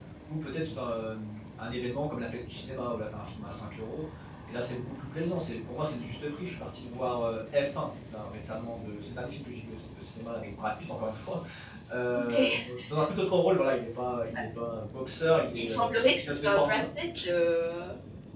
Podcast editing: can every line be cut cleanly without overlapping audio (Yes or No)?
No